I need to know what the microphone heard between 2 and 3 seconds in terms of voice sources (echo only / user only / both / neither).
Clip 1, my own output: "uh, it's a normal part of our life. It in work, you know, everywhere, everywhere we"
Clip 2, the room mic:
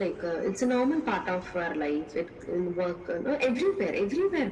echo only